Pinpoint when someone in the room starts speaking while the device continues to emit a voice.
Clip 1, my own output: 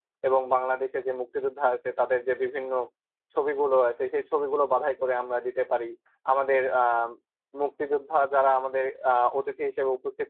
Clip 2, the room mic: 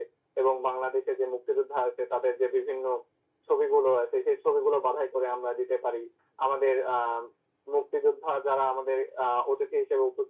none

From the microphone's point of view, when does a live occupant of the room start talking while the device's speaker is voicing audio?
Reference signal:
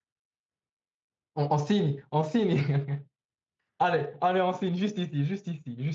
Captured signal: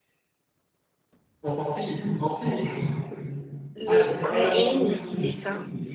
4 s

